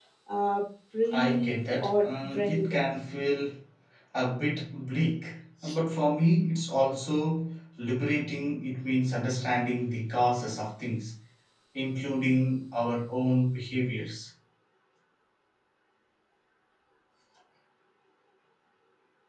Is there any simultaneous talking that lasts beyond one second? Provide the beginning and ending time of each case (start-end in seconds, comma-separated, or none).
1.1-2.8